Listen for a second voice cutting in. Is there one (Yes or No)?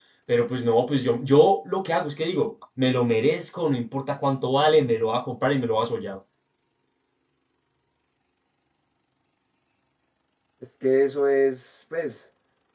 No